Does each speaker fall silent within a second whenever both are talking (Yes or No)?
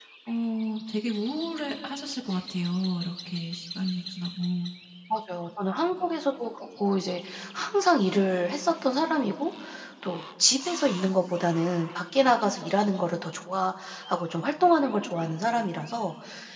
Yes